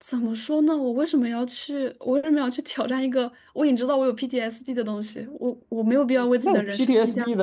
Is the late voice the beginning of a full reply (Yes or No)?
Yes